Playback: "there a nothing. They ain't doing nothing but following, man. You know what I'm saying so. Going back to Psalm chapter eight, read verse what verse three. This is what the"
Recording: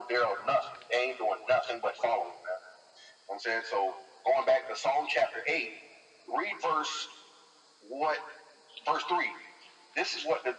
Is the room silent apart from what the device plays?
Yes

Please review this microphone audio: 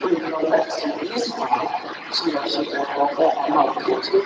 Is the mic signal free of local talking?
Yes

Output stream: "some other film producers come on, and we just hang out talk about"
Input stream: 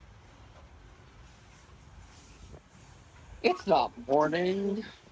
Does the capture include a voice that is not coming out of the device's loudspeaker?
Yes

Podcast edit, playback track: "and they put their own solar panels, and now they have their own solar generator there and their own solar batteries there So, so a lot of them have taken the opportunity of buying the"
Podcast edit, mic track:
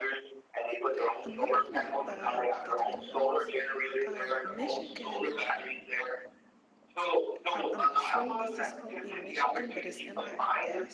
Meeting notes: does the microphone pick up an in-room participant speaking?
Yes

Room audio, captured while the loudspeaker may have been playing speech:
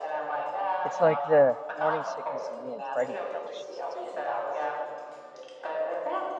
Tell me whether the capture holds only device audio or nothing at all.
No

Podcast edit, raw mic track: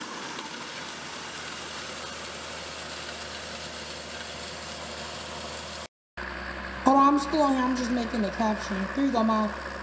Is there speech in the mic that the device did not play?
Yes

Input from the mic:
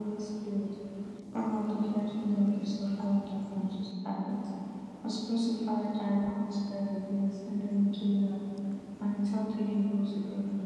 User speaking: No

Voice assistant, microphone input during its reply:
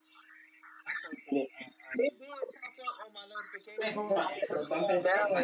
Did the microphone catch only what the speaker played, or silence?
No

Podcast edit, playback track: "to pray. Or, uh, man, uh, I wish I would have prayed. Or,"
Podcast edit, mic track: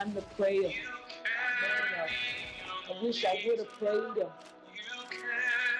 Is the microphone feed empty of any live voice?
Yes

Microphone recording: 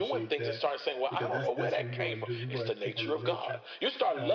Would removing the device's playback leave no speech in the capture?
No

